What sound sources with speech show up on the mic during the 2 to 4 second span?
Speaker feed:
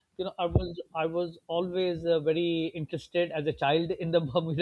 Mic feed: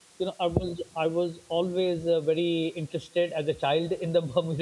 echo only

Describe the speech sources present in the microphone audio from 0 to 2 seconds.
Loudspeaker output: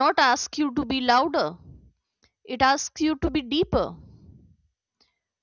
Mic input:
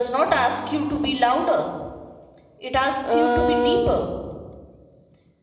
echo only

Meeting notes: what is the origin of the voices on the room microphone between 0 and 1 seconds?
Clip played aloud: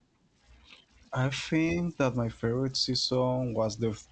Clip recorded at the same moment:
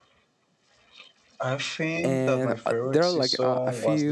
neither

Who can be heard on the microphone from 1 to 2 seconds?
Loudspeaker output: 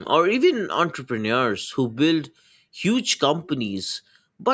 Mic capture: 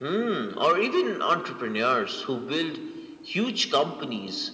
echo only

